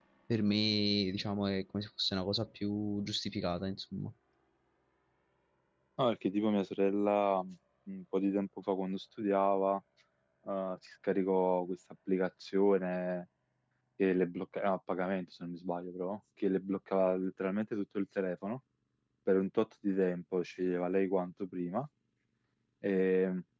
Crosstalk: none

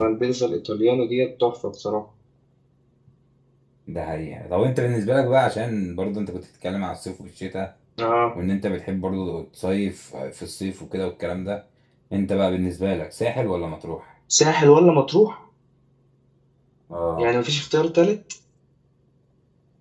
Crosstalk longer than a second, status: none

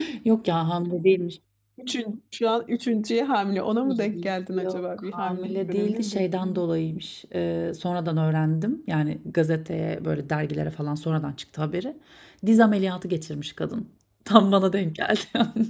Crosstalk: present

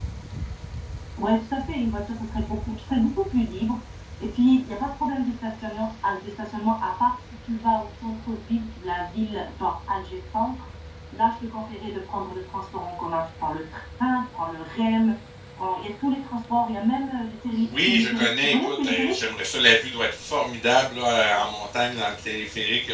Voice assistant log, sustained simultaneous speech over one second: present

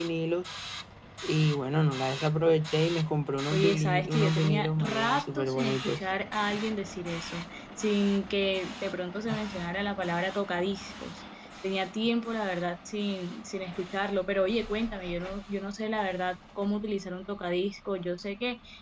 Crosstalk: present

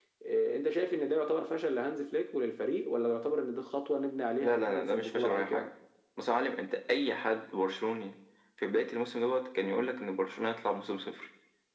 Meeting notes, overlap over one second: present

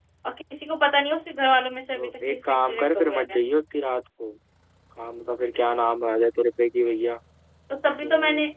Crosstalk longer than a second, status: present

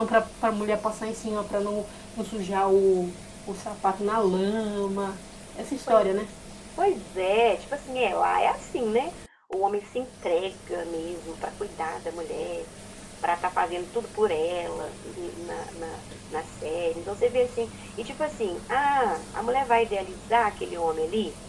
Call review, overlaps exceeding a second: none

